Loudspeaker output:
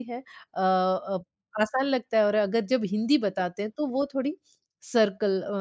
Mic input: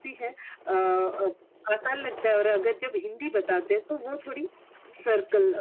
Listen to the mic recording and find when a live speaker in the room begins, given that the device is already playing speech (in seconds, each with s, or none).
none